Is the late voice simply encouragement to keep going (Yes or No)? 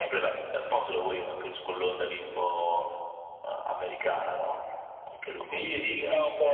No